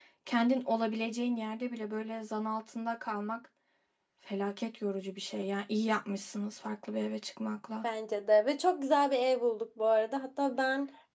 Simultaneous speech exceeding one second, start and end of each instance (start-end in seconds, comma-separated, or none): none